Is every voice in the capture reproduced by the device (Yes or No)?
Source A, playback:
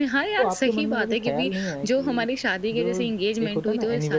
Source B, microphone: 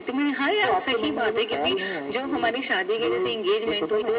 Yes